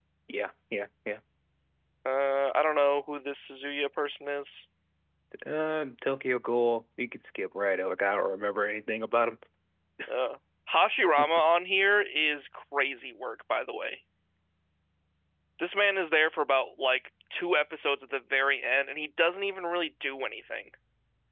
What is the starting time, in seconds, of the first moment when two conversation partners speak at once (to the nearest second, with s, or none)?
none